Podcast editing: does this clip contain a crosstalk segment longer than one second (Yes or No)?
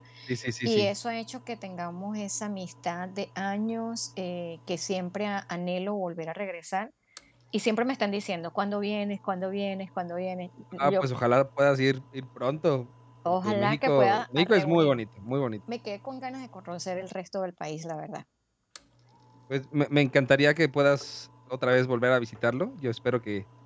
Yes